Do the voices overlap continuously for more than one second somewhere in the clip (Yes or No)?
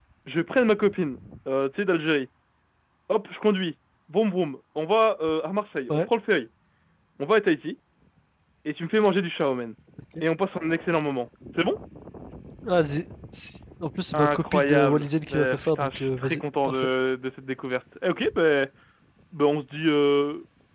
Yes